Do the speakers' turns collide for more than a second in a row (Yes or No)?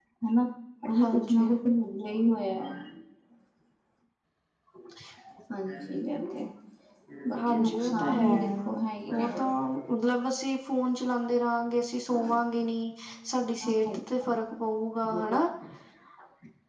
Yes